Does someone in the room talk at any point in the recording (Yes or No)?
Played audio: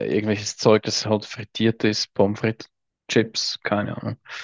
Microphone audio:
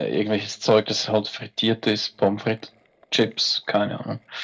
No